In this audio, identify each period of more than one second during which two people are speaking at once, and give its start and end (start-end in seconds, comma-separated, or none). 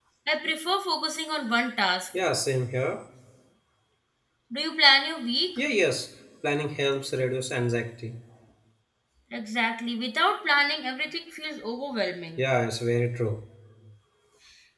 none